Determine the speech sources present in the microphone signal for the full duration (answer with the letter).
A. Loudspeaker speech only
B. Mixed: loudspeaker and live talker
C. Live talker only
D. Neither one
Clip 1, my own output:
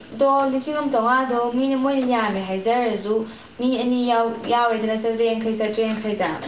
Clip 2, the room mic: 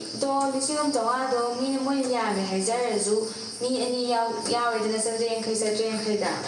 A